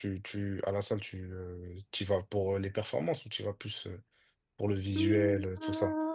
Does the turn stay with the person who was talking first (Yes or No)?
No